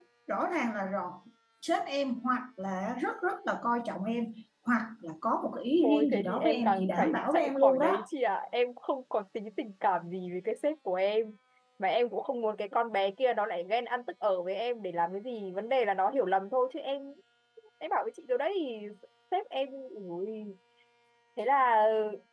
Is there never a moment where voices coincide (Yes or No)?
No